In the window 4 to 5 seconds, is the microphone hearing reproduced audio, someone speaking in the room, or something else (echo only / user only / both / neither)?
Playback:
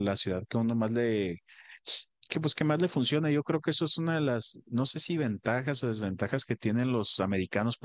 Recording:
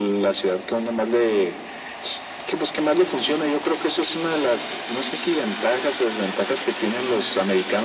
echo only